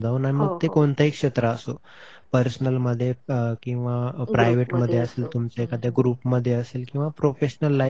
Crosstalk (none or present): present